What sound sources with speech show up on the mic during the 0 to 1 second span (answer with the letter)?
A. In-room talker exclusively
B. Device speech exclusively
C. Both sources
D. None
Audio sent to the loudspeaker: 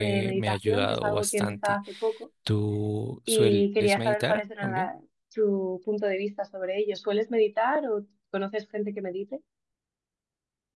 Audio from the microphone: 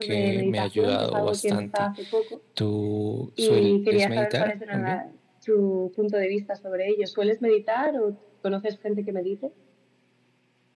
B